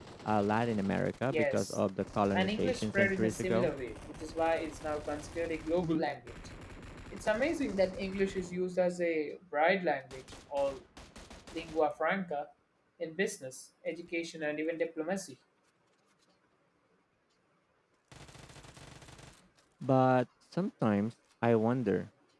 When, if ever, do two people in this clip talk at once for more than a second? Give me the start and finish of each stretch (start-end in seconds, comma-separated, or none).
2.3-3.7